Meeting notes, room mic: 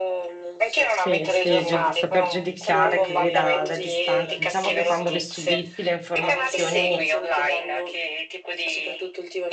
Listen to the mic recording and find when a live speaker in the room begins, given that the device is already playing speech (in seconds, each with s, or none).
0.8 s